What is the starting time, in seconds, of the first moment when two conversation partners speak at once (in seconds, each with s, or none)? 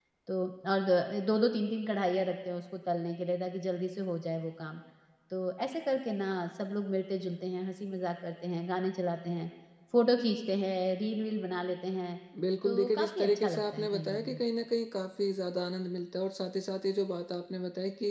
12.7 s